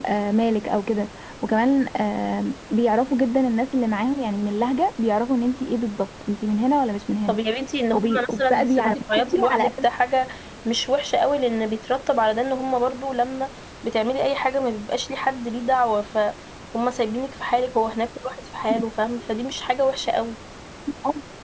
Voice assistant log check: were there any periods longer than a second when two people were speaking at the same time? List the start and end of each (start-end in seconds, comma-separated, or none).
7.9-9.7